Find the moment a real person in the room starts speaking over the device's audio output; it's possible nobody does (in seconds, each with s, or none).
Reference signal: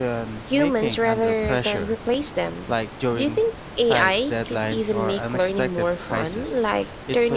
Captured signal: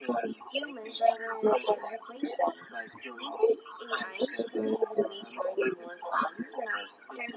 none